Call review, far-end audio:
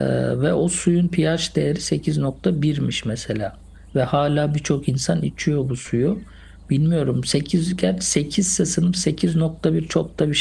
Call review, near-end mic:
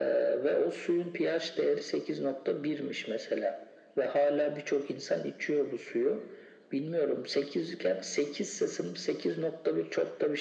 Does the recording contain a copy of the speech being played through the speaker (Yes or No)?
Yes